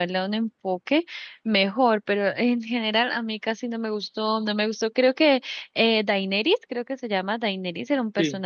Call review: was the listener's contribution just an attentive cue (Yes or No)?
Yes